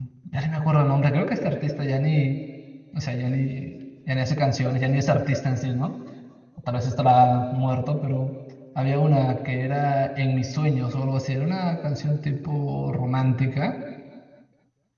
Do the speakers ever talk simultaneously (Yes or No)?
No